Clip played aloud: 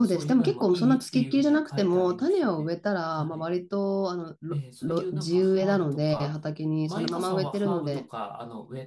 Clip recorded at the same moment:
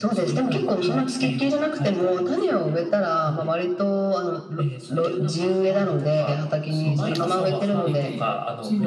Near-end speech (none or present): present